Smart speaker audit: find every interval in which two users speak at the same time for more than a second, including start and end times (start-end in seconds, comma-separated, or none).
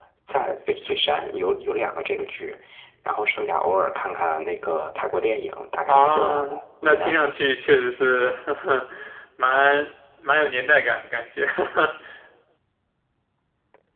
5.9-7.2